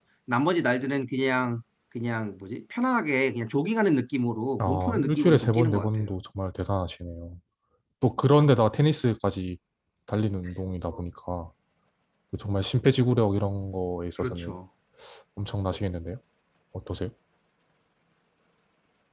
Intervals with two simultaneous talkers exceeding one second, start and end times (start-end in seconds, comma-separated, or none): 4.6-5.9